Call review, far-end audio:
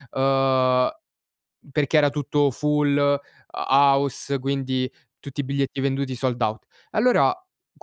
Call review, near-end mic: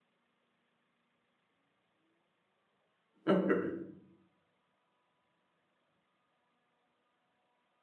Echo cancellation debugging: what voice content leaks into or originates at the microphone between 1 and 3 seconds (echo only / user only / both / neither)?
neither